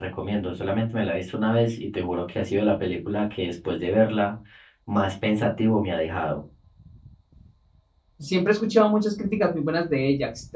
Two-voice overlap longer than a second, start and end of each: none

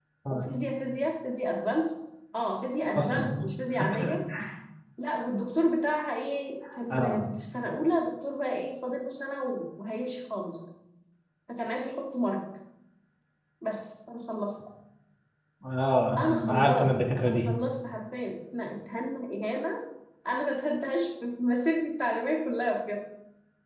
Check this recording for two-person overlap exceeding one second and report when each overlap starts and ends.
16.2-17.5

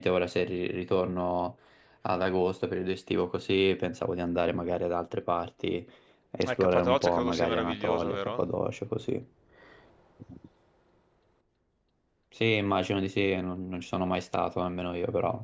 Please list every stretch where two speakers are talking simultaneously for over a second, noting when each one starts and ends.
6.5-8.4

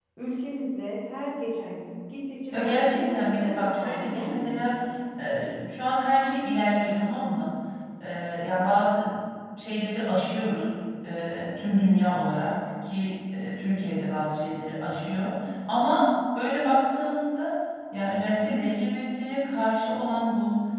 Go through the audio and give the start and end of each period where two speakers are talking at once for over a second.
2.5-4.8

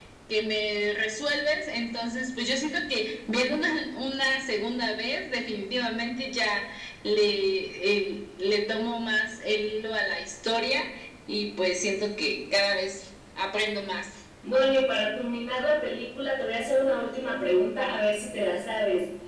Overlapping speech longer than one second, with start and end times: none

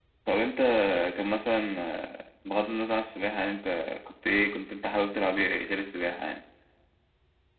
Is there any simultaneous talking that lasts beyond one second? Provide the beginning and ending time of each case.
none

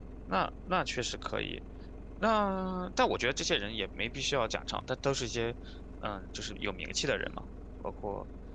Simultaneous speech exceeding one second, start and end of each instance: none

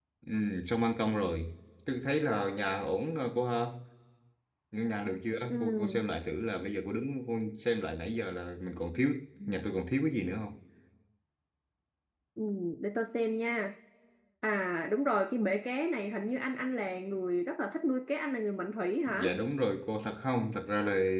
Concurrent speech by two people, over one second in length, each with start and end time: none

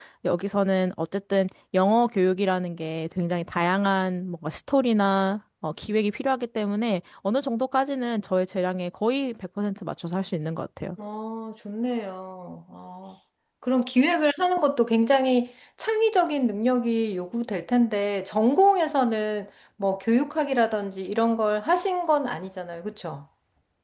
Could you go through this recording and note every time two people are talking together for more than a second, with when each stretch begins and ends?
none

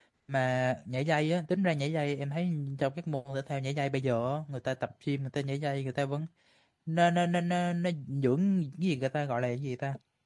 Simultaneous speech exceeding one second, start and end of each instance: none

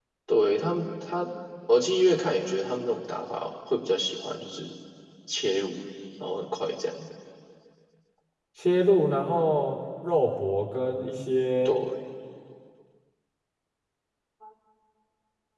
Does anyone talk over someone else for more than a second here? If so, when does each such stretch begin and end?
none

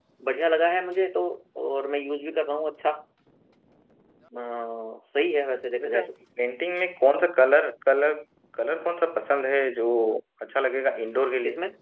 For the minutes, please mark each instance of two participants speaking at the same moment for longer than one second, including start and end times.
none

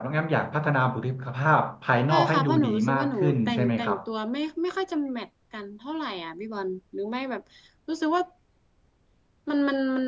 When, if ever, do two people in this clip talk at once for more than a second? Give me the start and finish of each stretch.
2.1-4.0

